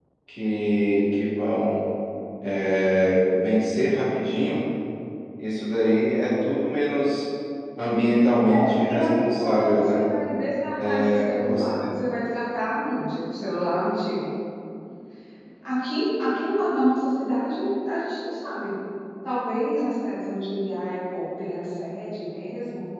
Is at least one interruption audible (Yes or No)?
Yes